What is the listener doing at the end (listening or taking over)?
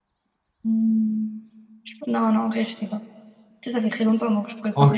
taking over